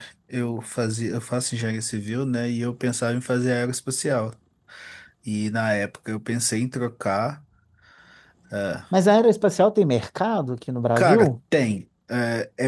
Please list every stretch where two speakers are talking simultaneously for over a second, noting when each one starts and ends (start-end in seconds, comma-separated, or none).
none